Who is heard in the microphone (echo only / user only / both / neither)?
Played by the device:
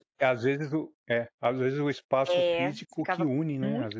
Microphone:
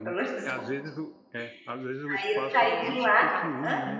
both